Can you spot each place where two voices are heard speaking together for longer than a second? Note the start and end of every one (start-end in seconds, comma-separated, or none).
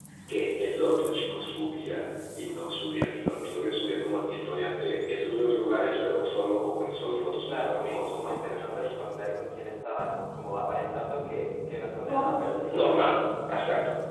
7.5-9.0